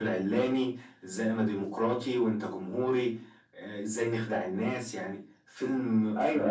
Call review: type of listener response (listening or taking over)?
taking over